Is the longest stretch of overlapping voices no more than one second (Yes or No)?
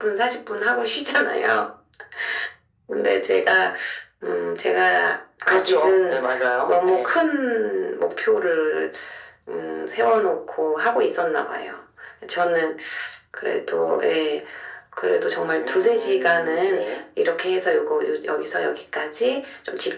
No